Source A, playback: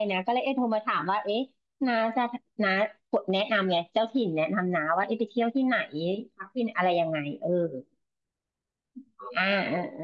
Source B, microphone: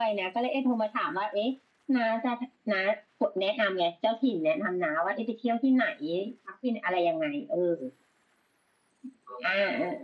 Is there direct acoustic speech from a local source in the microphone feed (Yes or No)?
No